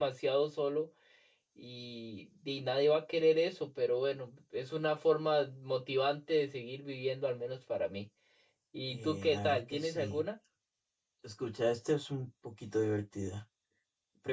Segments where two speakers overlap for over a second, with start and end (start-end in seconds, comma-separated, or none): 8.9-10.2